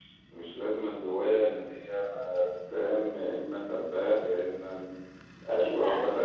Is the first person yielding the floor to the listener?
Yes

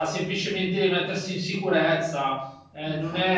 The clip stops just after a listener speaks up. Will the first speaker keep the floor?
Yes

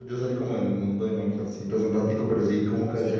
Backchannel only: Yes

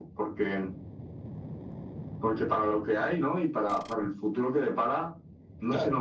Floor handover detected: No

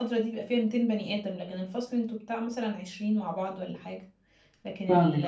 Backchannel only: No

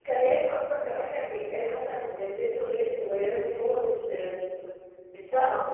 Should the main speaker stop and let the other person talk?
Yes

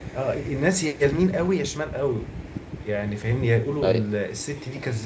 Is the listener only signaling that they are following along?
Yes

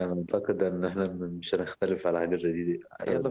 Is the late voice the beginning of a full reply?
Yes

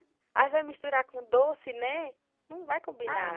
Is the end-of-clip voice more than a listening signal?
Yes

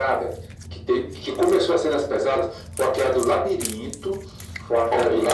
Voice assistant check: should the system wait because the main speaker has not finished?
Yes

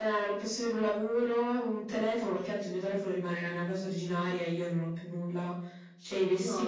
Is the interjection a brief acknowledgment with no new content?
No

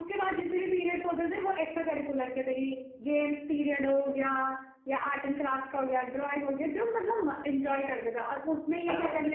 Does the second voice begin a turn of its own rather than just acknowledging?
No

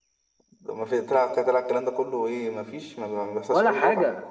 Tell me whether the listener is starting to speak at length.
Yes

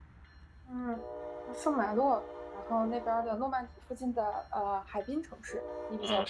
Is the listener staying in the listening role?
No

